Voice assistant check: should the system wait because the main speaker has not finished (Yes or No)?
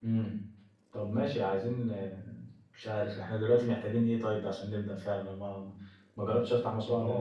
Yes